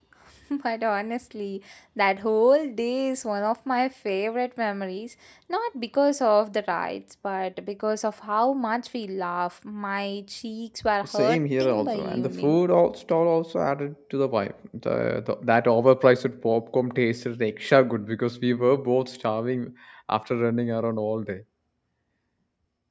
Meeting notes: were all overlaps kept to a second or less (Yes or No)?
No